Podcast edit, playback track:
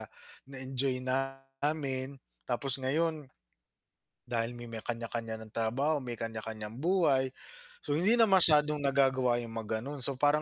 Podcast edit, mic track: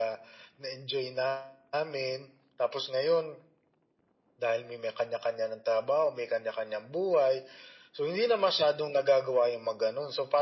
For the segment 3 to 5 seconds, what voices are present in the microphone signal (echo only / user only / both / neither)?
echo only